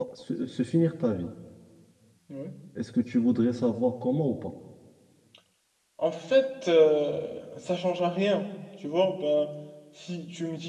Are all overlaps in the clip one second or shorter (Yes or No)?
Yes